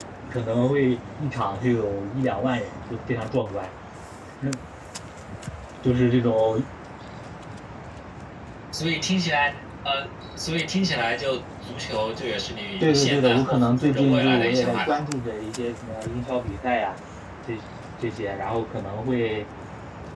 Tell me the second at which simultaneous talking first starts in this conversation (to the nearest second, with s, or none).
13 s